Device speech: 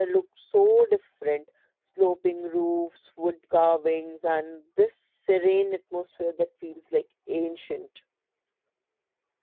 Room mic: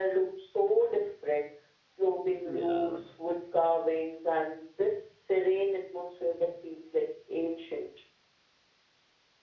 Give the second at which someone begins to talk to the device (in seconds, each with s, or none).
2.4 s